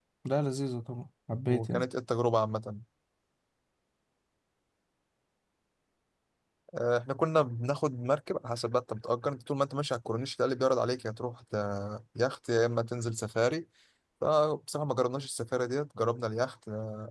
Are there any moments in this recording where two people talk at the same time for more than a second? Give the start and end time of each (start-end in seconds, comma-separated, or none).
none